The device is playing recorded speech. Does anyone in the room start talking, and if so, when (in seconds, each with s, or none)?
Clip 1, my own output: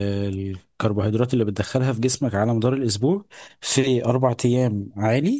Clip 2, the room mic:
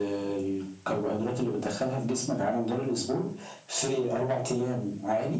none